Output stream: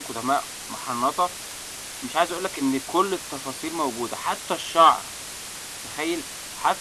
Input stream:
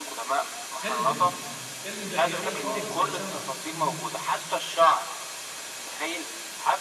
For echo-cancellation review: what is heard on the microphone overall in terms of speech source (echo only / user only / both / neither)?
both